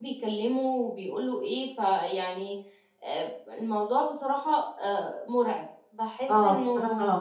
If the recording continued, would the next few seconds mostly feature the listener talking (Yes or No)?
Yes